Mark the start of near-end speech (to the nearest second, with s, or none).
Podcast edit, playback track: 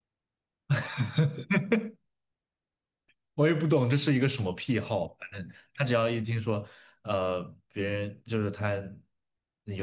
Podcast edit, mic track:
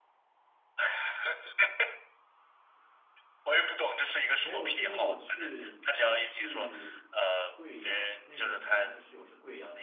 4 s